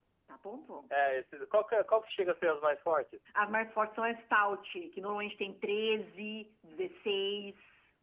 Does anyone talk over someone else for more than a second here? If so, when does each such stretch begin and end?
none

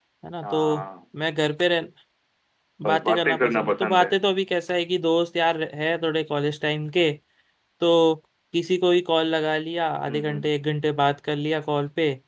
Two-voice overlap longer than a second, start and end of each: 2.9-4.1

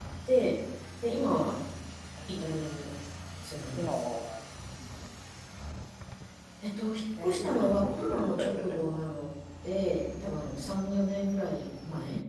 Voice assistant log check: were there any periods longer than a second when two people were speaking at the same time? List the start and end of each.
7.2-9.0

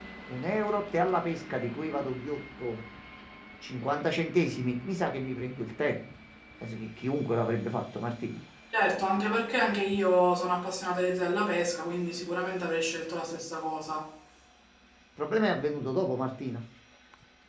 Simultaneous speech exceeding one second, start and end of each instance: none

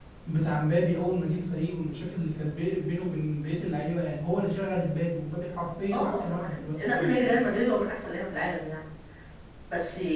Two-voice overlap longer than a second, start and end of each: 5.9-7.4

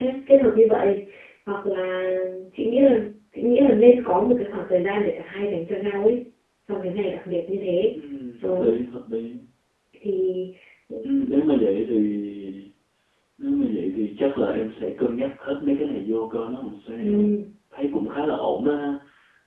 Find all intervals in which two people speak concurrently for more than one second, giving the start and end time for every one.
none

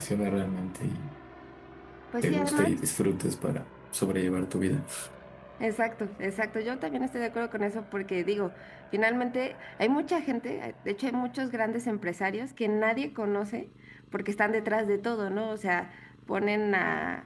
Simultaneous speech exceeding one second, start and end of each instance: none

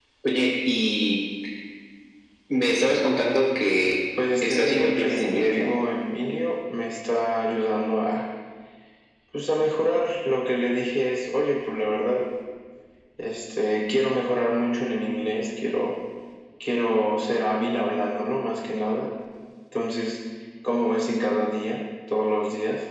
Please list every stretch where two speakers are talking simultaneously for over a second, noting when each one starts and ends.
4.4-5.7

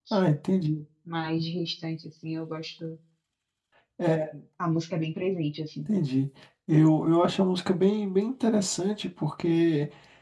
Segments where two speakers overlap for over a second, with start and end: none

